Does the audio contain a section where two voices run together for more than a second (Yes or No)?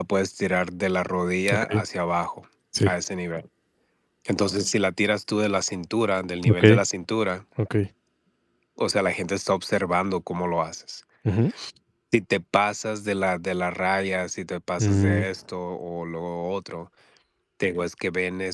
No